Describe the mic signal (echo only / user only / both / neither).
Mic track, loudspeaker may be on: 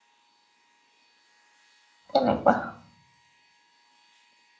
user only